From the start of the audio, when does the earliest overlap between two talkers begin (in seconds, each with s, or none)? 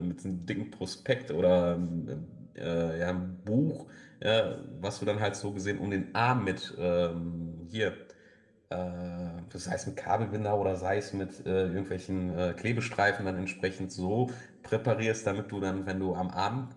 none